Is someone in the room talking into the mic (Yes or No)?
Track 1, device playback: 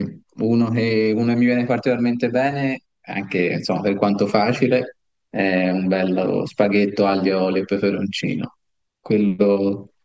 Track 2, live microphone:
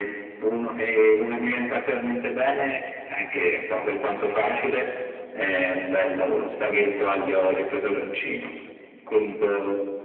No